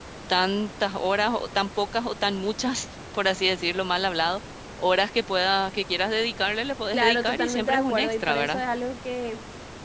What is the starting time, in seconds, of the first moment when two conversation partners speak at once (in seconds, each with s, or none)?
6.9 s